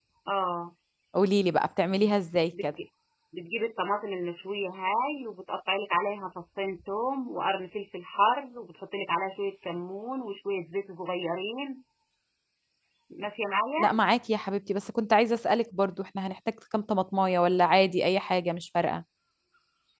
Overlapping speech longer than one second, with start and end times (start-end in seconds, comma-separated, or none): none